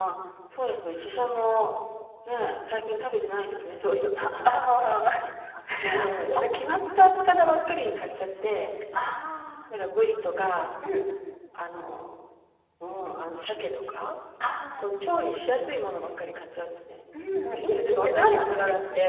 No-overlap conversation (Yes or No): No